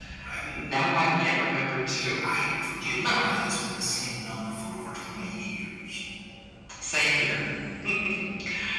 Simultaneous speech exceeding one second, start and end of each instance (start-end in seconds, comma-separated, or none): none